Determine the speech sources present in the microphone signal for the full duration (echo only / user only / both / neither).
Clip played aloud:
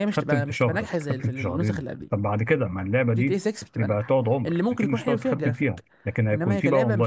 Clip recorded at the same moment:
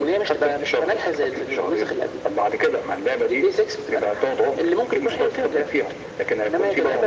echo only